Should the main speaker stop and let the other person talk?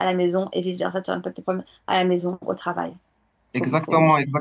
Yes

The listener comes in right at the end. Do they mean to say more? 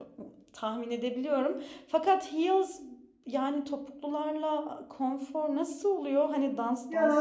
Yes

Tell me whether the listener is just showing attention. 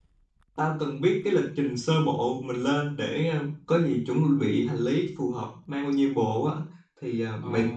Yes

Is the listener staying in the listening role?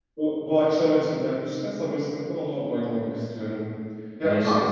Yes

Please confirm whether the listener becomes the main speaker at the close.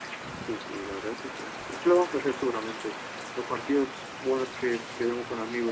No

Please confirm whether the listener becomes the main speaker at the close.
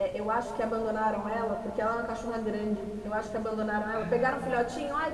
No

